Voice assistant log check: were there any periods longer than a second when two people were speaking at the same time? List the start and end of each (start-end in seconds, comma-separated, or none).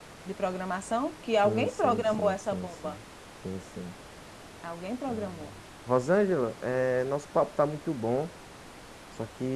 1.4-3.0